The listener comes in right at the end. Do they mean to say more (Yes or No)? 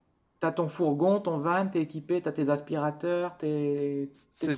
Yes